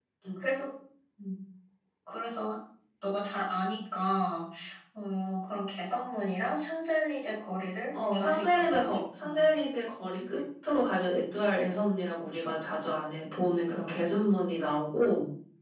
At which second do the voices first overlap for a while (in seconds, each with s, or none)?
7.9 s